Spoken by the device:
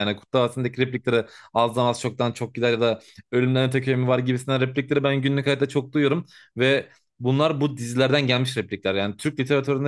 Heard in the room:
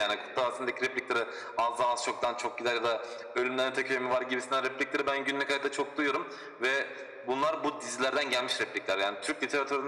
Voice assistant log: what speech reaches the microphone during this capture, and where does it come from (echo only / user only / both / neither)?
echo only